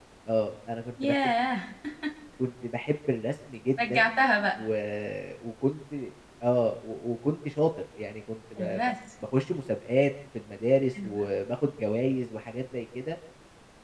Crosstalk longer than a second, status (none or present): none